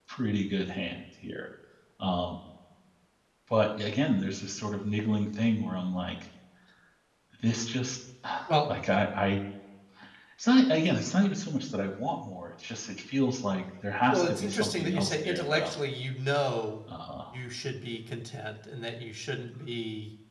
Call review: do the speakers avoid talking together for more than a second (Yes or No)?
No